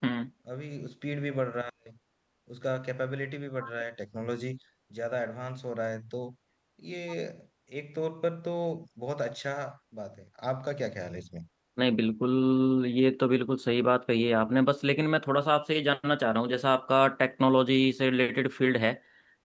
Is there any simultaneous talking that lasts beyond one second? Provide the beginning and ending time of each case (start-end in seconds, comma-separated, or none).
none